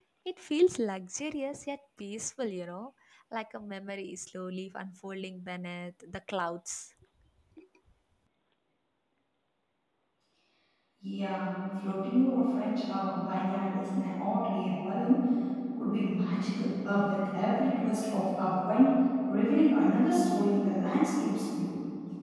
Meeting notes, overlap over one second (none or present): none